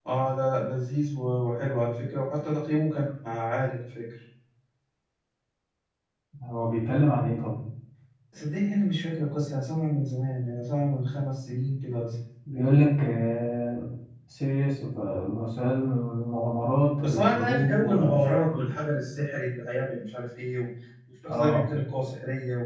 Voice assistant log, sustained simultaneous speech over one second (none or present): present